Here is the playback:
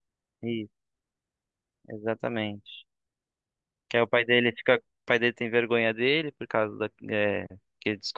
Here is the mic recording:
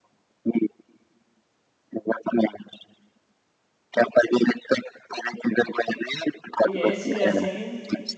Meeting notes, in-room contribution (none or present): present